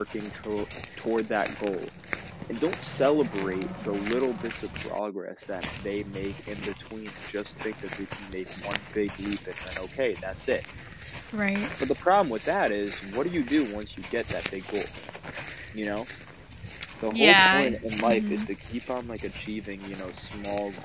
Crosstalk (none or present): present